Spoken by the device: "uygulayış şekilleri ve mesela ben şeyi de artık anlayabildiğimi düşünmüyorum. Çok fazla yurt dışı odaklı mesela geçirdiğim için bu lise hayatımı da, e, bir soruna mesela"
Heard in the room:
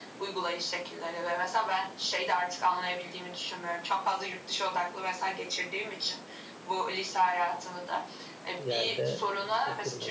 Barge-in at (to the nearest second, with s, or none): 9 s